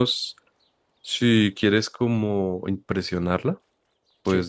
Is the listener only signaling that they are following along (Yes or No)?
Yes